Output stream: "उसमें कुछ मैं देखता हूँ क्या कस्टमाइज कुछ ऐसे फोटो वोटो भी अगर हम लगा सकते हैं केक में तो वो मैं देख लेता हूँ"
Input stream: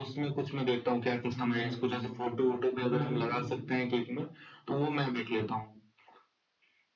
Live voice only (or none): हम्म बिल्कुल